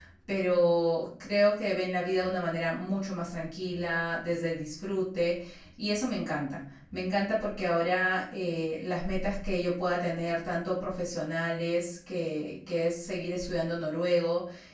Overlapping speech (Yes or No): No